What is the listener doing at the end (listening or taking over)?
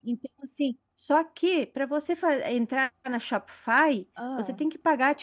listening